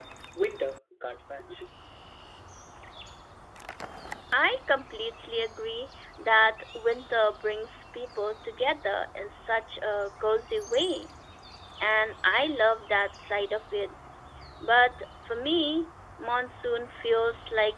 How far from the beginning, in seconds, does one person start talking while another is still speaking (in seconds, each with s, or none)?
none